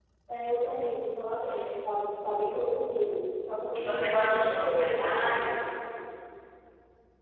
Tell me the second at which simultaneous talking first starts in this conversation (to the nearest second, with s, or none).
4 s